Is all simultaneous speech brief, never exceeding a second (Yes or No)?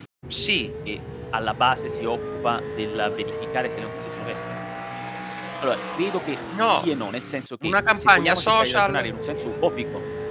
No